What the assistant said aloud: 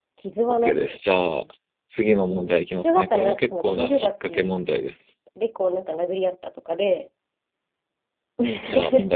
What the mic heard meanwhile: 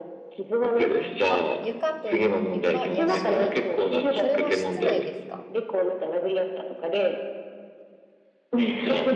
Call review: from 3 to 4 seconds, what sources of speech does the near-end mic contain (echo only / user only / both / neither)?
both